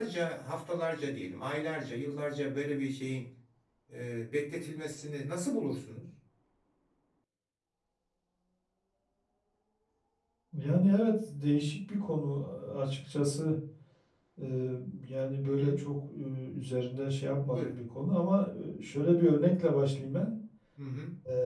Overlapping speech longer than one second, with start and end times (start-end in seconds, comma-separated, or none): none